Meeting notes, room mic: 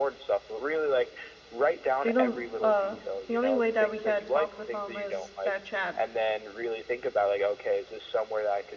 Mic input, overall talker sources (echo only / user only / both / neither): both